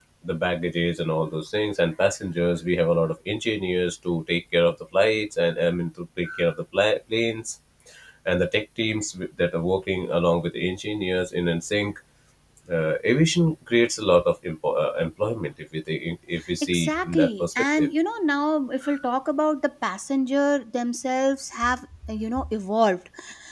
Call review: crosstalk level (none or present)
present